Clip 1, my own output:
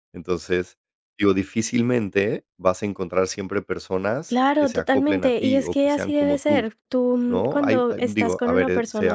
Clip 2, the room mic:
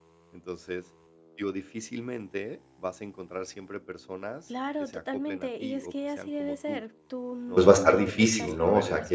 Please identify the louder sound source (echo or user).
user